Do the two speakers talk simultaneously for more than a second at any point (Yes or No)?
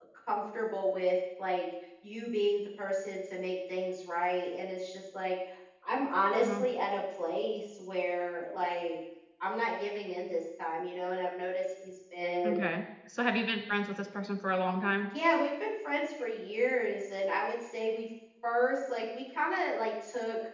No